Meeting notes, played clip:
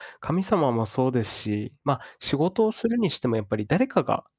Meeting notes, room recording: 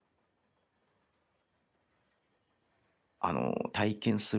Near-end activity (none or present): present